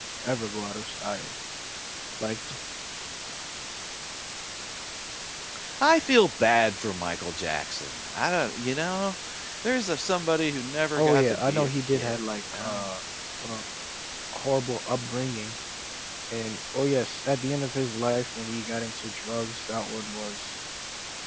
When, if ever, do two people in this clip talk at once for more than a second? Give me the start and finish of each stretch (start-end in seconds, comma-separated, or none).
11.0-12.9